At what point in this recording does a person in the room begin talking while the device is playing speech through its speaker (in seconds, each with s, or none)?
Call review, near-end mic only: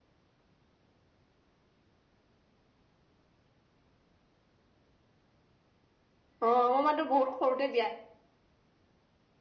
6.4 s